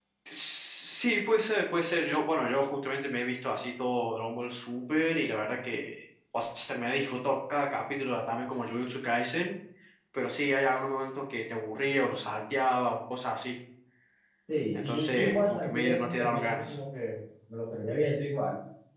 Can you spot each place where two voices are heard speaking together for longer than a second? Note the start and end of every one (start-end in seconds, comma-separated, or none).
14.7-16.8